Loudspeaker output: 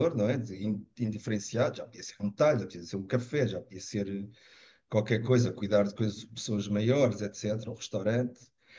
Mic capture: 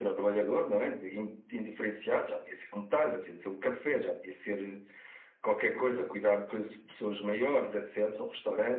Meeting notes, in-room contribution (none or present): none